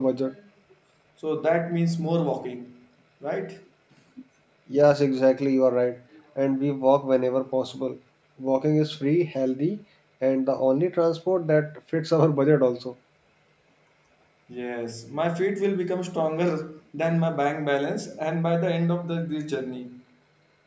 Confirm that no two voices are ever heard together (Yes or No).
Yes